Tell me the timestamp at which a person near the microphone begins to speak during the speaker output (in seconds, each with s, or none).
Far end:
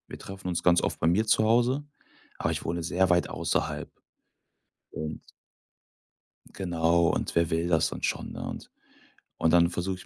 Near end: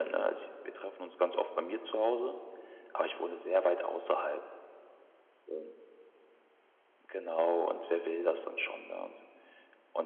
none